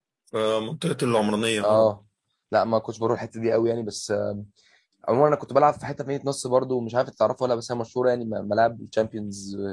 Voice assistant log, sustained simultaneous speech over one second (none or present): none